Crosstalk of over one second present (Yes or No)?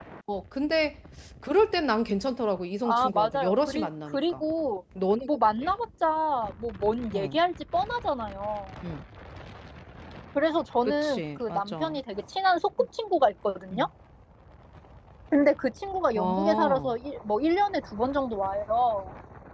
Yes